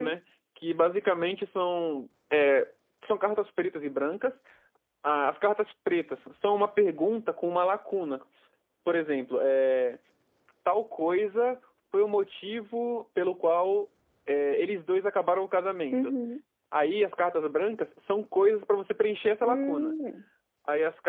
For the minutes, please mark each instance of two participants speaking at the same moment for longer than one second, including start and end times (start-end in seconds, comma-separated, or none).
none